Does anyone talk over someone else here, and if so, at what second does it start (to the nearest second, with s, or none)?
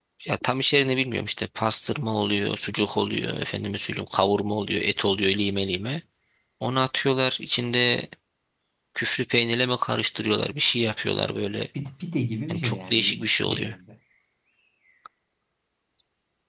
12 s